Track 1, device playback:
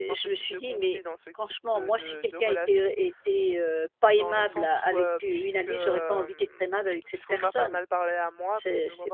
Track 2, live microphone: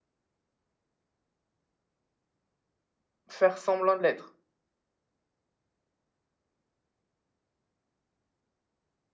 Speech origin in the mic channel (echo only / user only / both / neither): user only